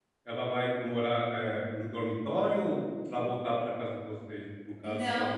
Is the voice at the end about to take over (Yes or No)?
Yes